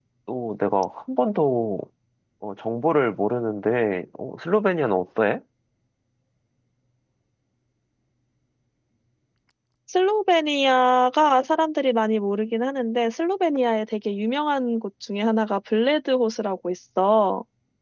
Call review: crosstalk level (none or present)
none